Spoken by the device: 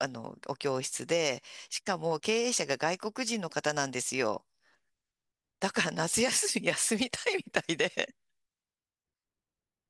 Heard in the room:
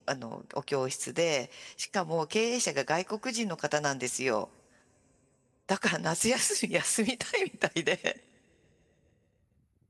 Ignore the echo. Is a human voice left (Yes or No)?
No